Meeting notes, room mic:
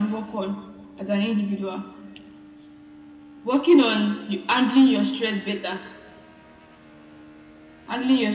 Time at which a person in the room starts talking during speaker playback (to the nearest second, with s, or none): none